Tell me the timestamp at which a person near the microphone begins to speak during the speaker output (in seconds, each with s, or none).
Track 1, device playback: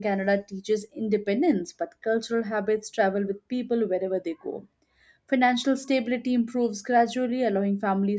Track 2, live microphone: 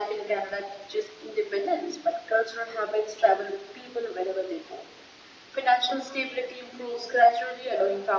none